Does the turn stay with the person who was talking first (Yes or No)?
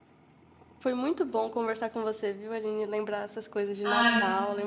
Yes